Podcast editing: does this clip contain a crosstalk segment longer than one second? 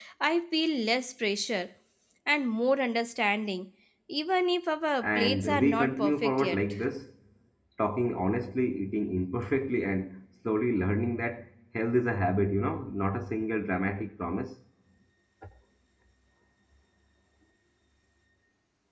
Yes, from 5.0 s

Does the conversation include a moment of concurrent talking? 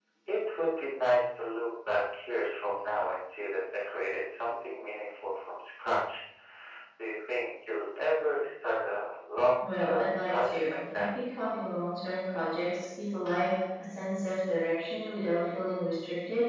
Yes, from 9.6 s

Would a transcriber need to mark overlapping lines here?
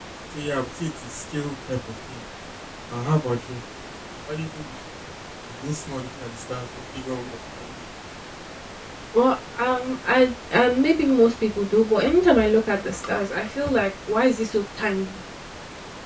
No

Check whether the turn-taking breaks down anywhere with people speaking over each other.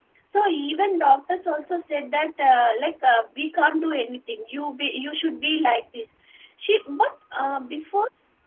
No

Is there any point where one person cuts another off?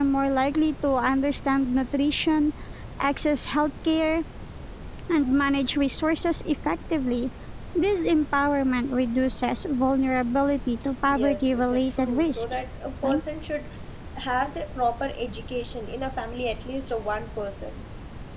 Yes, from 11.1 s

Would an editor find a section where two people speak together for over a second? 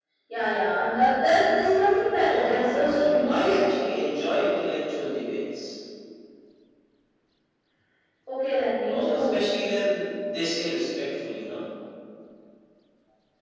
Yes, from 2.2 s

